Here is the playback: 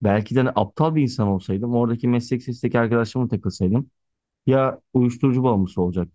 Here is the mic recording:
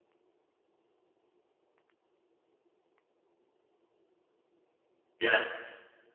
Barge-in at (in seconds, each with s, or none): 5.2 s